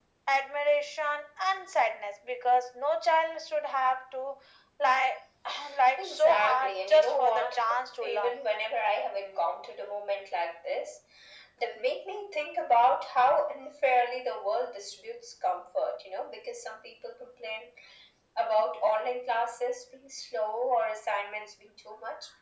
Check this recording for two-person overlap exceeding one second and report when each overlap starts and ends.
6.0-7.6

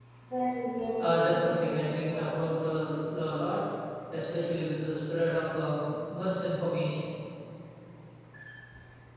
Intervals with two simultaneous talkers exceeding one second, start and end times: 1.0-2.2

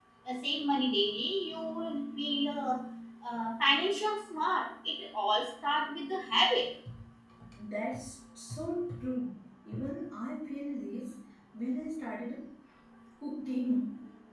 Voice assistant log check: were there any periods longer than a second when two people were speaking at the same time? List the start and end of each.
none

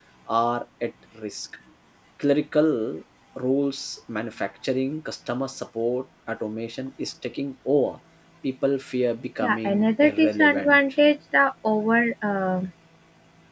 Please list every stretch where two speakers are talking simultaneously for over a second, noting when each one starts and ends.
9.4-10.8

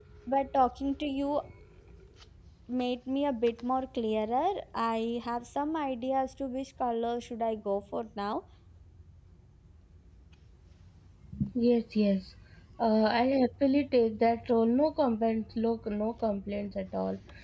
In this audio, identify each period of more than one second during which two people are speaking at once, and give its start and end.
none

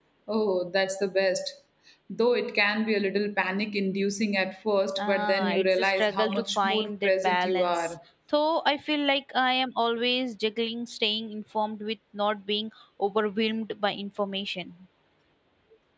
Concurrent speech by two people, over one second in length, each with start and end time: 5.0-7.9

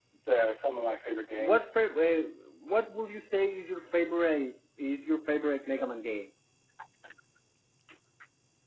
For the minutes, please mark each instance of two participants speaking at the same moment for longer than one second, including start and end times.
none

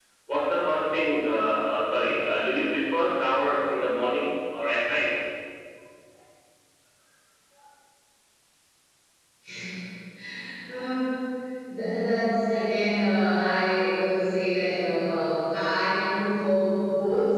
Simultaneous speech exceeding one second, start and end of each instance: none

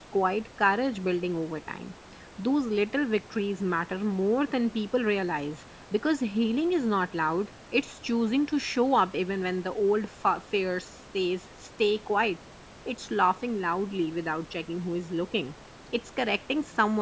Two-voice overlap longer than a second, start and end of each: none

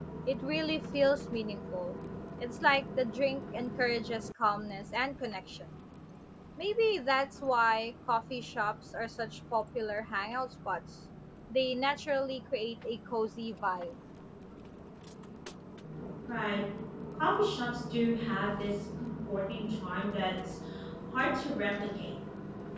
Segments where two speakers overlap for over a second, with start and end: none

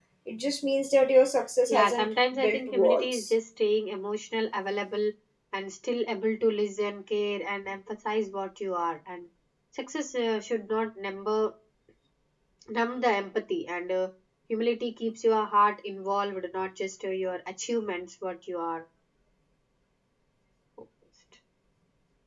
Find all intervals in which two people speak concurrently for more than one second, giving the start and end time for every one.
1.7-3.2

